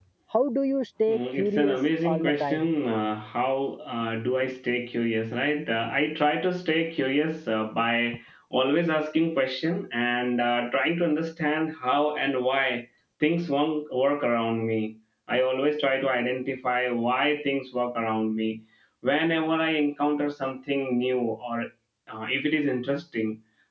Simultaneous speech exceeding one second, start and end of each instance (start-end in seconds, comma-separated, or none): 1.1-2.6